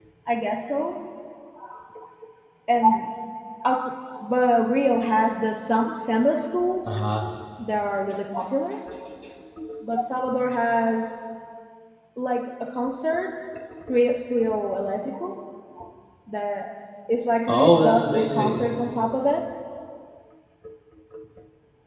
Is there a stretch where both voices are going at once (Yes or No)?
Yes